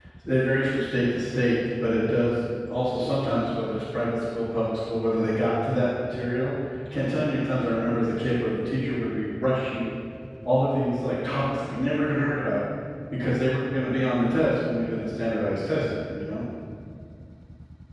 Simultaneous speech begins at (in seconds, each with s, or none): none